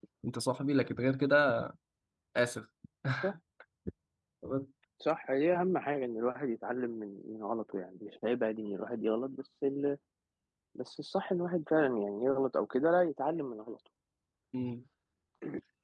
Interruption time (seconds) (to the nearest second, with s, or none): none